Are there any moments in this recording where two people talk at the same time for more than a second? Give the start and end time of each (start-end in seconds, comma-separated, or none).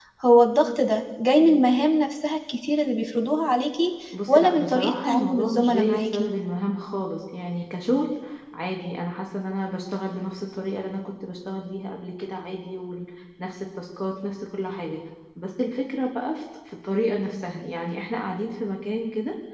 4.3-6.3